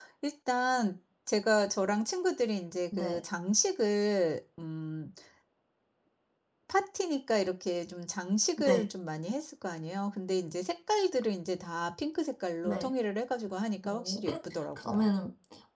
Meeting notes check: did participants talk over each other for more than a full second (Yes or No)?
No